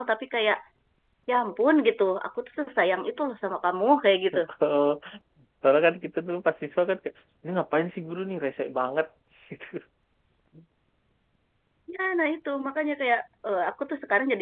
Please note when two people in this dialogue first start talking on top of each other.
none

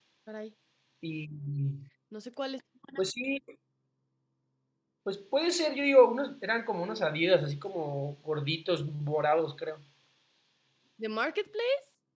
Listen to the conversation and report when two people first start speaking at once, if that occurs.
none

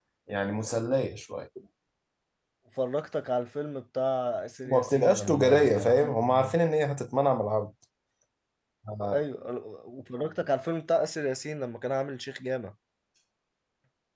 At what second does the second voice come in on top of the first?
4.7 s

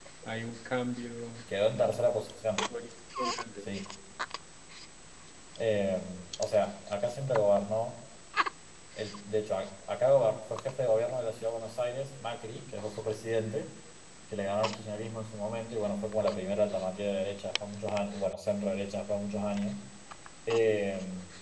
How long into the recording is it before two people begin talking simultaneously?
none

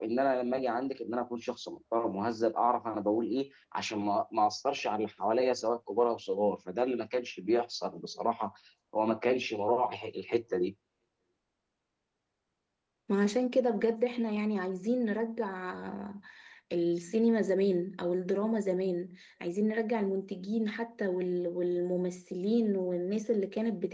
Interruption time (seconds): none

